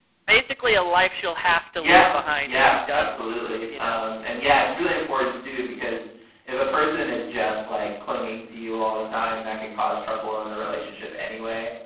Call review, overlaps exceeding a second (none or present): present